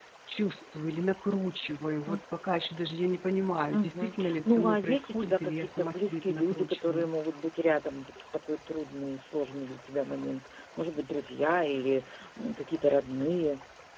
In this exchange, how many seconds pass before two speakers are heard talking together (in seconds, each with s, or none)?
3.7 s